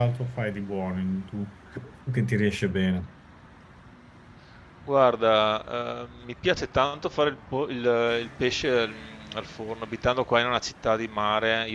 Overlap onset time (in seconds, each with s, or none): none